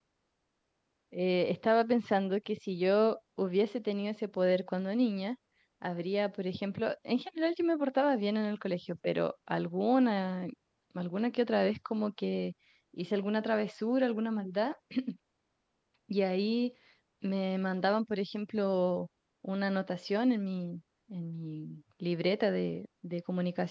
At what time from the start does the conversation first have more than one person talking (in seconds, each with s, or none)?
none